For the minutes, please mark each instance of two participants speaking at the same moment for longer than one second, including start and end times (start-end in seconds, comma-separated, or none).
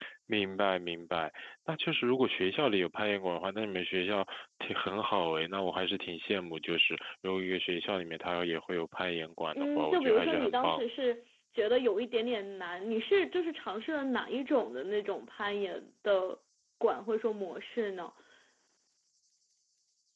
9.6-10.8